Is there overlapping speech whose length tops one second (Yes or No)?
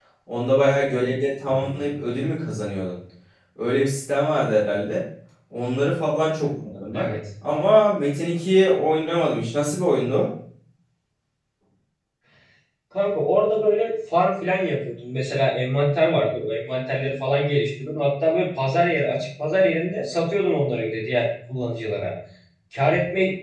No